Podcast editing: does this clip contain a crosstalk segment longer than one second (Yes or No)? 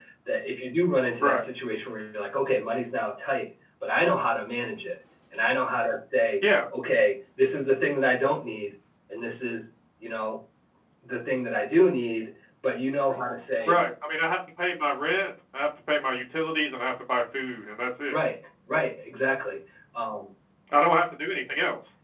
No